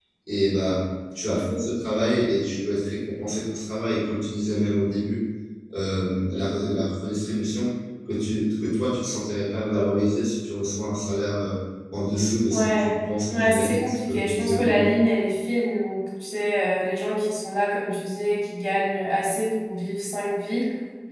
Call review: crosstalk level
present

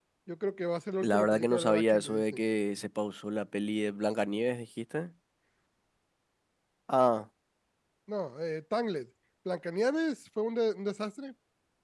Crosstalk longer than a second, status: present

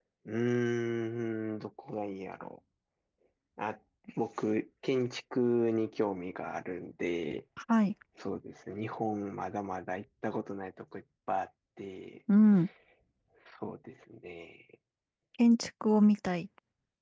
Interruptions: none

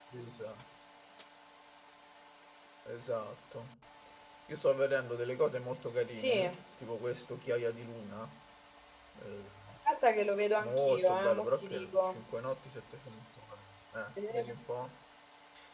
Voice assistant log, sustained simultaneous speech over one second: present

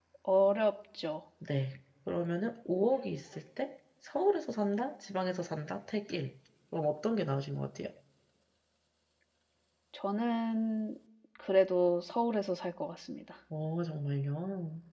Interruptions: none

